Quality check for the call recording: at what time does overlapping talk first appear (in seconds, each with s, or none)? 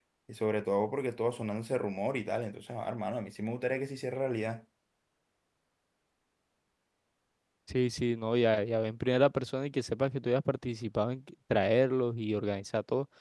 none